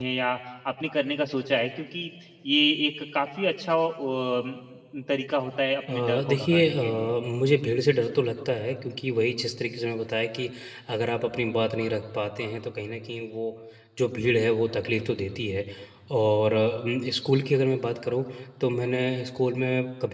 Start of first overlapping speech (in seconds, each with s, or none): 5.9 s